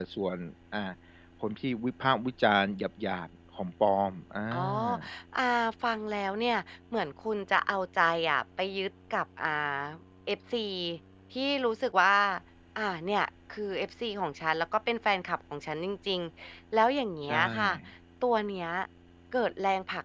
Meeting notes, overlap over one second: none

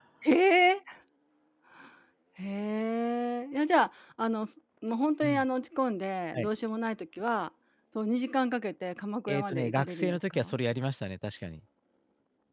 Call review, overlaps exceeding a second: present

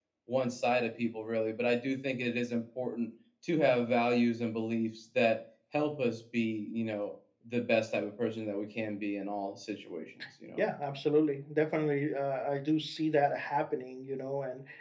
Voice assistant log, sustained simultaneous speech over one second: none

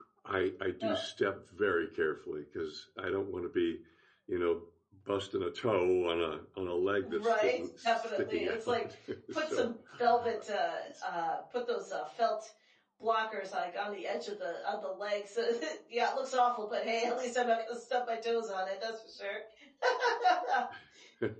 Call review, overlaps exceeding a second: present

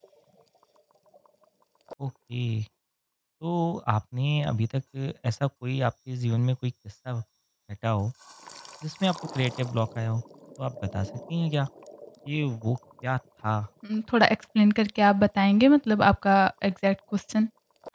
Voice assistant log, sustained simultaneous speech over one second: none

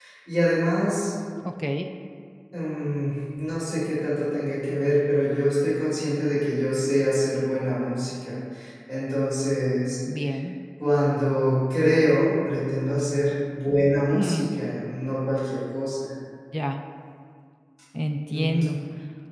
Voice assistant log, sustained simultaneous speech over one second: none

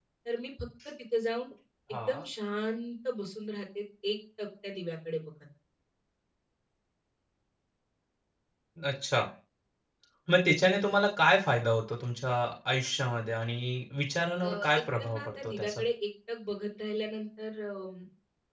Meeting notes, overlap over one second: present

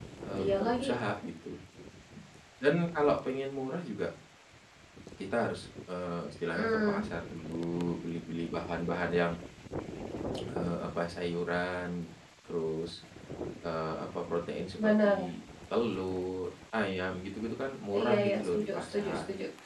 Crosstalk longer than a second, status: present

